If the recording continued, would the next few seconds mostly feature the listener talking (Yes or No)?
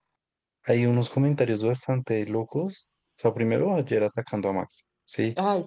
Yes